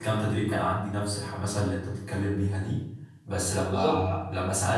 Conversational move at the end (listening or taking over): listening